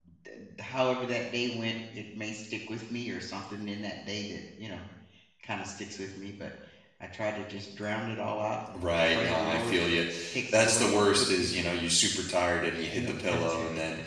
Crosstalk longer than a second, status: present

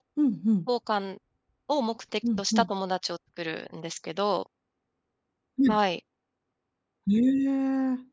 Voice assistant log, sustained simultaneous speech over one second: none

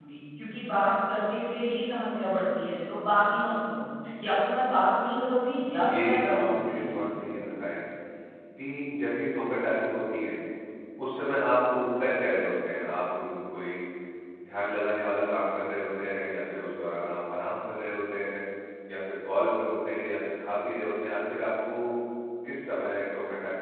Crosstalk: present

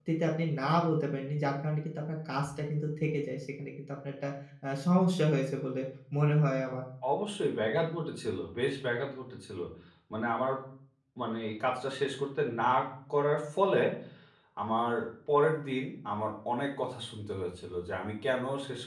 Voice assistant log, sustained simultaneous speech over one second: none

